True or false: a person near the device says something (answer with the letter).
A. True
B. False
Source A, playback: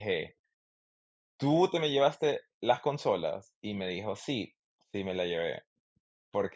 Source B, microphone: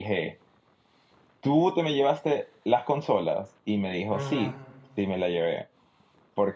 A